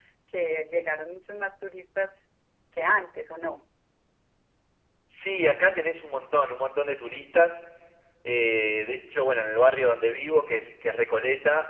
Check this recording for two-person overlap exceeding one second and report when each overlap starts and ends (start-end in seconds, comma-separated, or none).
none